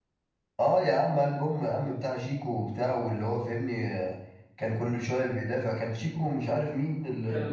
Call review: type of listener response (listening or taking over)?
taking over